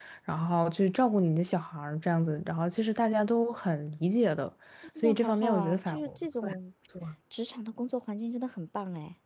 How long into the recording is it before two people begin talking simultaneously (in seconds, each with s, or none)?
5.0 s